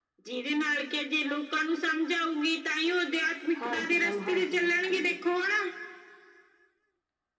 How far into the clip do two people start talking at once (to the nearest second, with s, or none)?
4 s